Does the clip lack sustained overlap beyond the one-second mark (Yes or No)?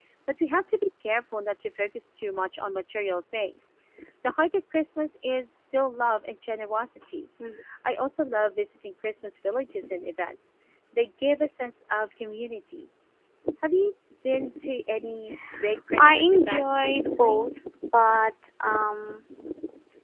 No